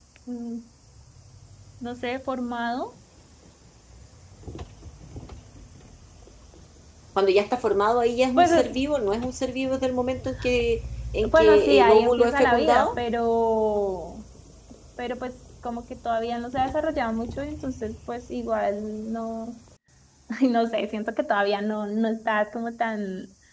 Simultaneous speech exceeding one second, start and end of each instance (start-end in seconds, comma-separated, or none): 11.3-12.9